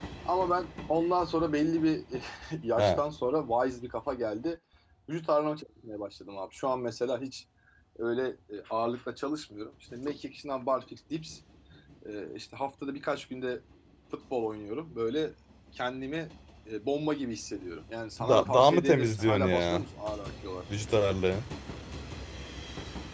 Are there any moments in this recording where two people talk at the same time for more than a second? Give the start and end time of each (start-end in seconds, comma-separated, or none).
18.2-19.8